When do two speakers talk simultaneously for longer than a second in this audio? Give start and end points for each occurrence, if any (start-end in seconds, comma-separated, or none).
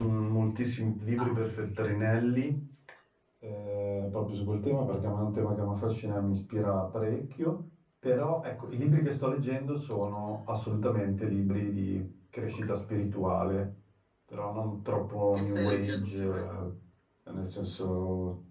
15.3-16.6